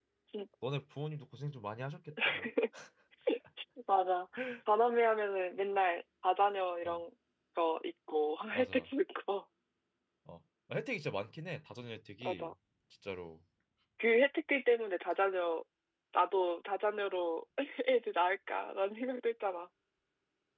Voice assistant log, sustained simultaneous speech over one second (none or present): none